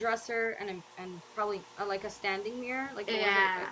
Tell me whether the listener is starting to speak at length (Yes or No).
Yes